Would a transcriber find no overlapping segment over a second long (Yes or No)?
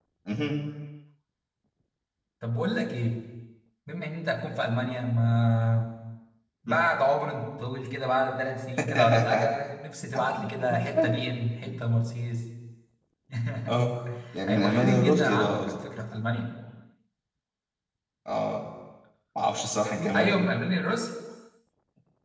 No